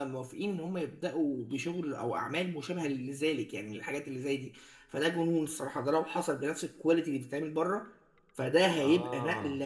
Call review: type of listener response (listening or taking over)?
listening